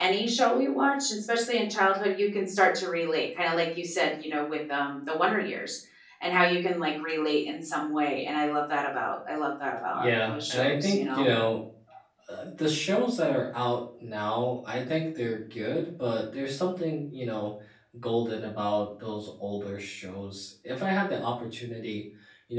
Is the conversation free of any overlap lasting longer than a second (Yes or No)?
No